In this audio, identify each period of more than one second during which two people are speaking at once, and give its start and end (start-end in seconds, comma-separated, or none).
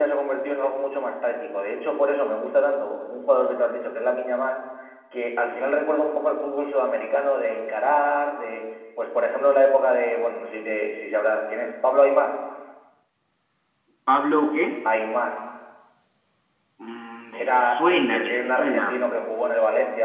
17.3-18.9